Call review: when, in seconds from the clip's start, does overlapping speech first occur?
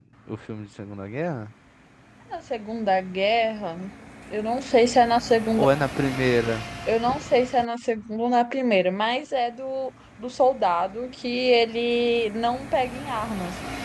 none

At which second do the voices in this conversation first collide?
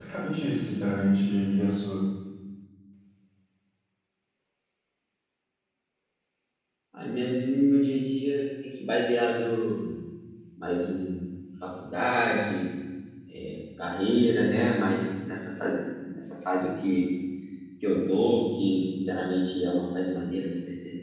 none

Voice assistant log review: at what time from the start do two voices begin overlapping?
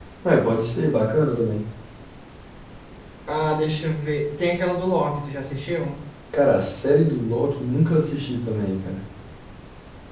none

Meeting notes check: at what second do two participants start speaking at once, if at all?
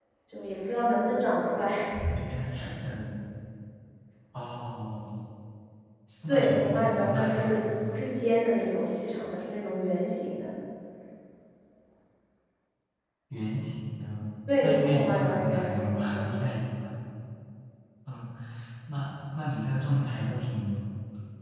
6.3 s

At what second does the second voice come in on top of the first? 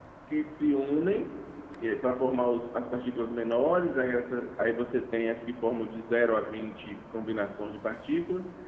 none

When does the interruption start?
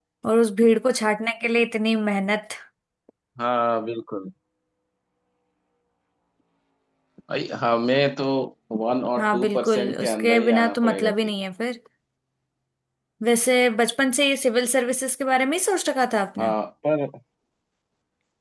9.2 s

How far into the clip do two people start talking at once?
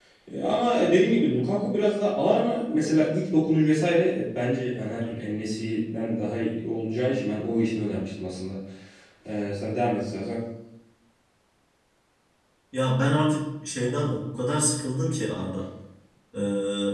none

